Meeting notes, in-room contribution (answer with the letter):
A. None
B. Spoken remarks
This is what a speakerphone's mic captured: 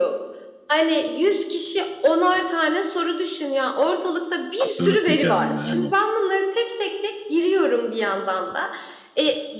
B